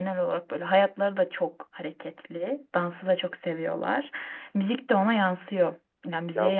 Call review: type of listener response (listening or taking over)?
listening